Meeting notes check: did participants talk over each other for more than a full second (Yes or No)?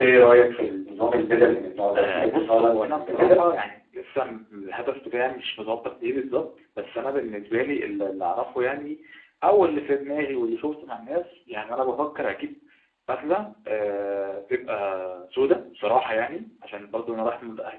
Yes